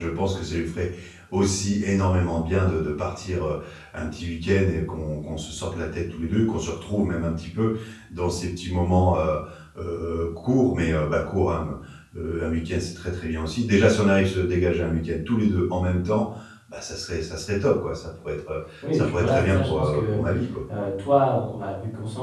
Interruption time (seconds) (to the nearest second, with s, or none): 19 s